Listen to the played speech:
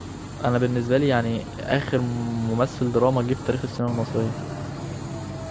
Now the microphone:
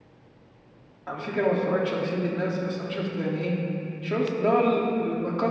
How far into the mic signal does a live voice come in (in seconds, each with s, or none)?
1.1 s